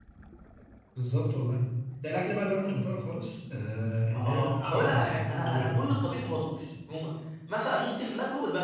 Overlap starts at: 4 s

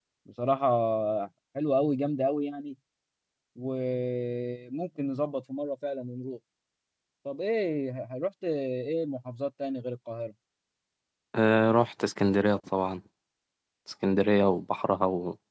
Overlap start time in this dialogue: none

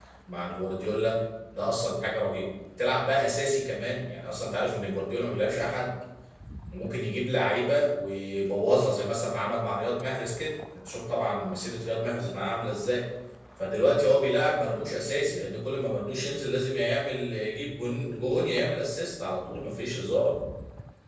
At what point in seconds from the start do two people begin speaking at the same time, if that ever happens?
none

